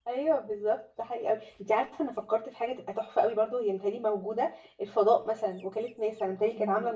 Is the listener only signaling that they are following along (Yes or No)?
Yes